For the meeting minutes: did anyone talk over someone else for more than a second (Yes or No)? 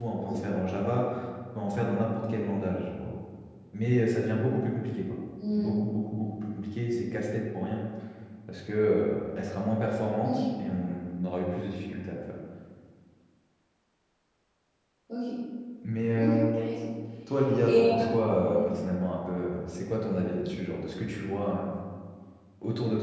No